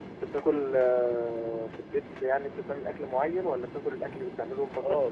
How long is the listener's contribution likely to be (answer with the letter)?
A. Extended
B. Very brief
A